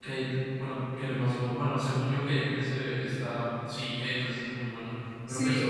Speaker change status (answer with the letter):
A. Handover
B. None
A